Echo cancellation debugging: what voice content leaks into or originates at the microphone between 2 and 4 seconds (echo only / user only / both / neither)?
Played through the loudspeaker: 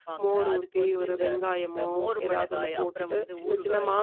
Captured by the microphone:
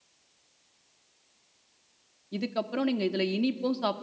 user only